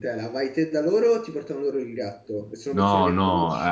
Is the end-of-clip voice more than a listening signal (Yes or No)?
Yes